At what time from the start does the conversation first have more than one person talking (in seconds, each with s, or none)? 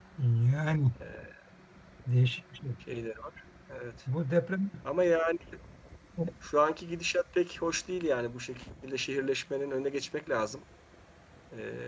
none